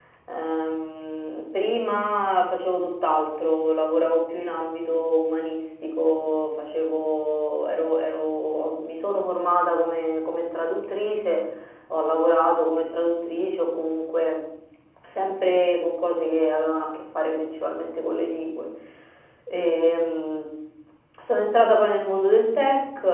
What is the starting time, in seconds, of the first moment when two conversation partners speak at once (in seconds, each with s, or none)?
none